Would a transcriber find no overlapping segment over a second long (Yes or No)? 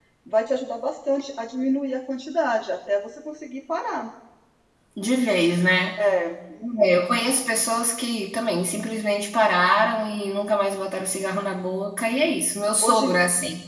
Yes